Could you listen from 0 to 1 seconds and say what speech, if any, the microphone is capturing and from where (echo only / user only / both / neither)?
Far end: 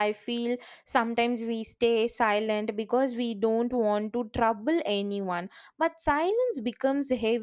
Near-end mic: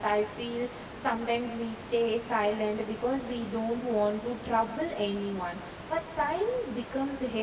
echo only